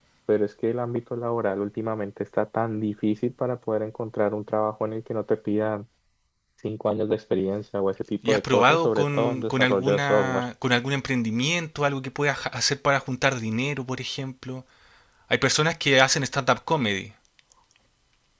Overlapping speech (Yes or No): Yes